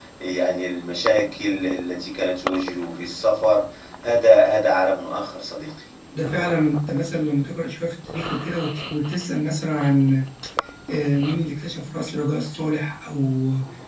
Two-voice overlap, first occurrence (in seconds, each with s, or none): none